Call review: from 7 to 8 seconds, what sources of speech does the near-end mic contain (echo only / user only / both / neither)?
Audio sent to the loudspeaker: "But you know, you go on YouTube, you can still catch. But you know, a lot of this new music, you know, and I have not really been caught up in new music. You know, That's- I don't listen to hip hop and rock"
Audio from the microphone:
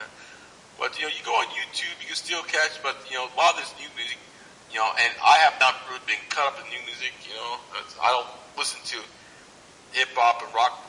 echo only